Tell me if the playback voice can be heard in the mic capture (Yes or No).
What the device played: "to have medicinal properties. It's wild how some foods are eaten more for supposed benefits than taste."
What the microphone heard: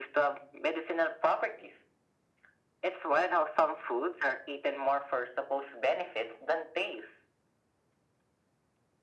Yes